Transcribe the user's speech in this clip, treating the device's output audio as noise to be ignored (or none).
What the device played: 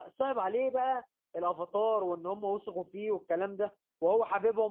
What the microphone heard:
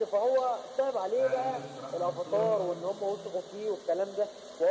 فعجبته بصراحة الدكتورة